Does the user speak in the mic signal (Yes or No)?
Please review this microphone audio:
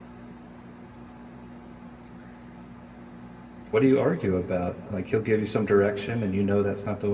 Yes